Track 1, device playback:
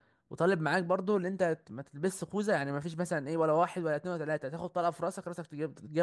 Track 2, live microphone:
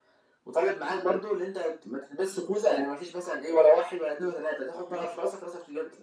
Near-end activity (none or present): none